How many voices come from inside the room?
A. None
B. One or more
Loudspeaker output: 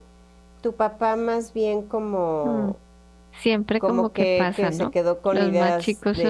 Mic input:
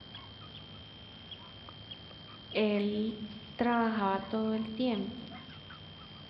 B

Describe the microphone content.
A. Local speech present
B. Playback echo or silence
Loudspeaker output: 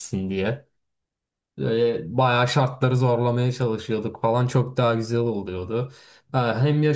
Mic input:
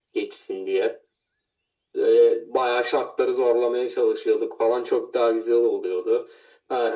B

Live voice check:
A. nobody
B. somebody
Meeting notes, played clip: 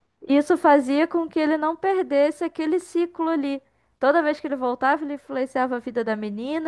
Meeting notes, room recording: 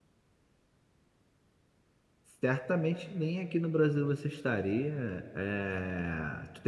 B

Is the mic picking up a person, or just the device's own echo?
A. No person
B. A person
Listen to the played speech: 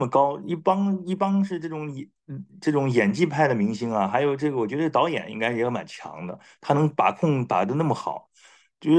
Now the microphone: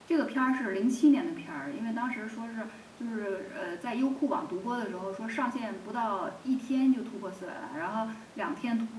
B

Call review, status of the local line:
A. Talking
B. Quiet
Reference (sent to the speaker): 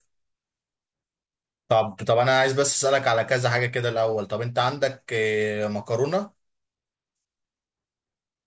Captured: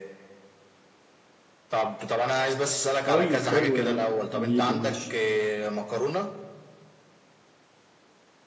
A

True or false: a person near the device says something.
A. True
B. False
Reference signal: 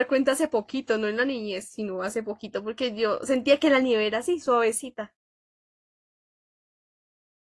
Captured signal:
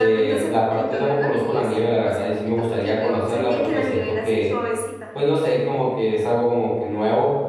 A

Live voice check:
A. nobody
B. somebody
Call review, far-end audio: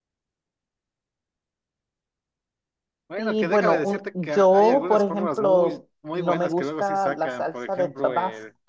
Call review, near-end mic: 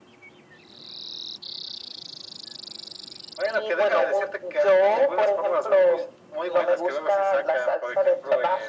A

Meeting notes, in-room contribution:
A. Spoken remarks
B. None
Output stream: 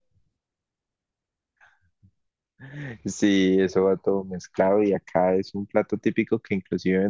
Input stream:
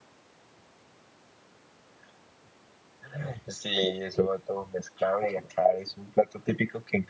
B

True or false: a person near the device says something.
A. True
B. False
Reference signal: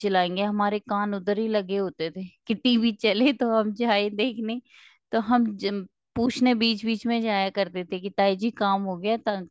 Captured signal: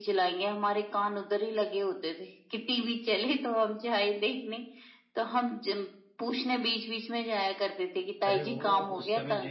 A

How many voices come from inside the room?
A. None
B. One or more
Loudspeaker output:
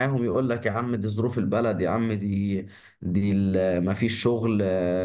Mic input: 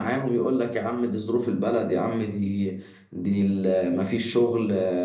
A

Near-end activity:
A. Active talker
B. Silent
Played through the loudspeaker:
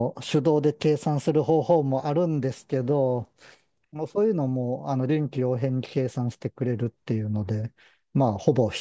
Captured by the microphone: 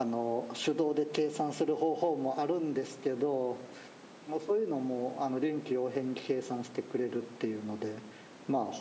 B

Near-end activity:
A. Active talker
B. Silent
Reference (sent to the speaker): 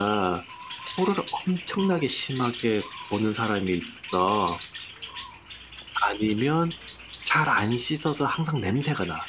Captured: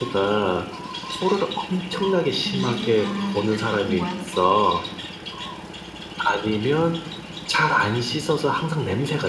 A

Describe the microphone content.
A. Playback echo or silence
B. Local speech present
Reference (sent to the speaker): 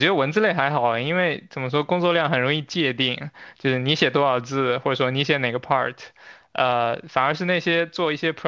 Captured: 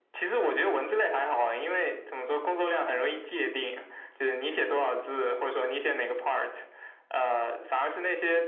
A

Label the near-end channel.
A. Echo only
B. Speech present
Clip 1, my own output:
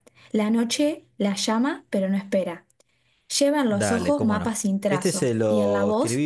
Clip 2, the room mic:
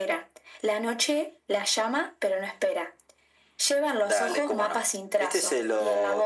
A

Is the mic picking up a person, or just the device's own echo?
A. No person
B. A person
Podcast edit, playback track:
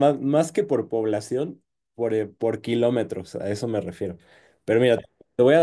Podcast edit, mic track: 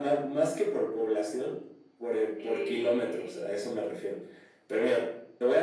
B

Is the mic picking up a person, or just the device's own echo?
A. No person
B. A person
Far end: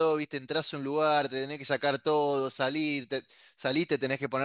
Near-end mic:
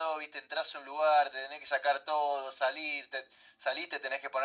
A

